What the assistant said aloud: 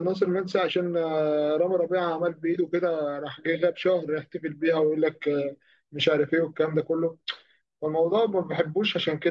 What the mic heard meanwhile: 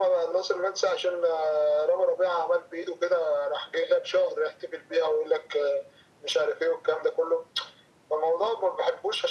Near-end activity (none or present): none